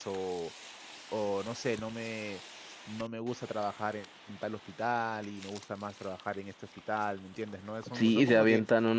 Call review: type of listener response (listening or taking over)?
taking over